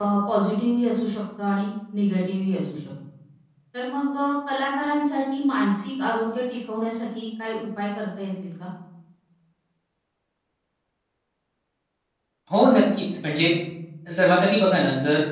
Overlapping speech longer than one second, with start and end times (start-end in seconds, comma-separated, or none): none